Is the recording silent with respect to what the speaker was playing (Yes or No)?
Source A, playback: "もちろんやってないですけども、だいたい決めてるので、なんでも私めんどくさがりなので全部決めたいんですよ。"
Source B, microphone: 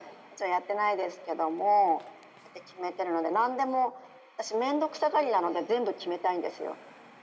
No